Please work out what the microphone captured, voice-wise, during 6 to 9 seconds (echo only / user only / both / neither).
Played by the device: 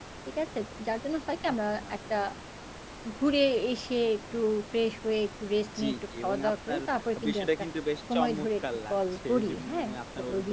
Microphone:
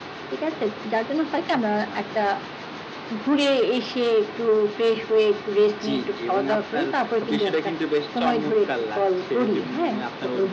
echo only